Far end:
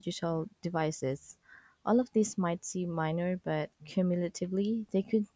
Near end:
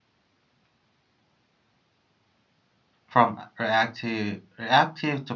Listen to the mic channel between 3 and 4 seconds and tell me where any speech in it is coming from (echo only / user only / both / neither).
user only